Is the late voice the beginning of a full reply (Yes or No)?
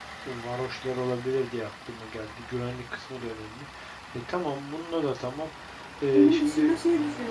Yes